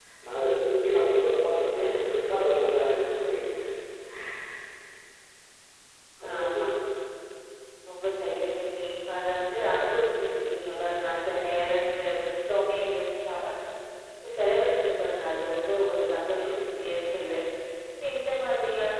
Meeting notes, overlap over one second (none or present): none